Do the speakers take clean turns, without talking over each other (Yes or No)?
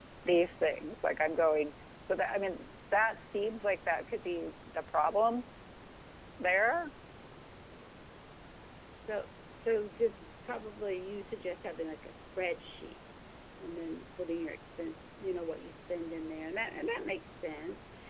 Yes